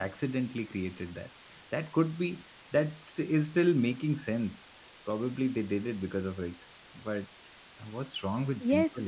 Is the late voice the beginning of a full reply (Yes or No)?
Yes